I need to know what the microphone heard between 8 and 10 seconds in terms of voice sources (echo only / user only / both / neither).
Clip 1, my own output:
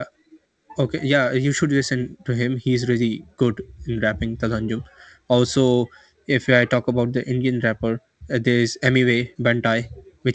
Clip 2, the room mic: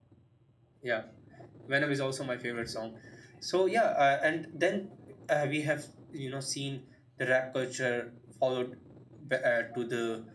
user only